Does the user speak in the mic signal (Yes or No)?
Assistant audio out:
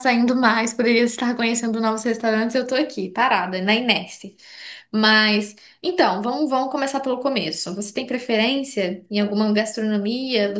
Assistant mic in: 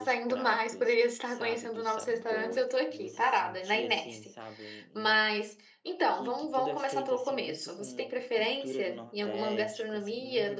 Yes